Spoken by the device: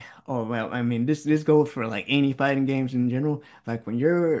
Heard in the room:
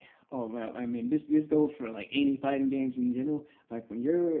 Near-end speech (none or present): none